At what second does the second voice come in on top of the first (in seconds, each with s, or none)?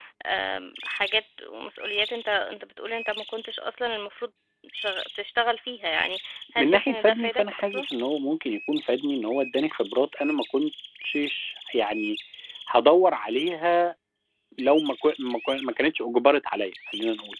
6.6 s